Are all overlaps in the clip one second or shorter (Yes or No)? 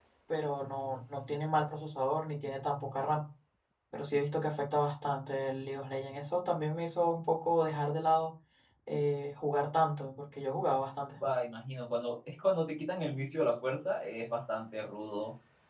Yes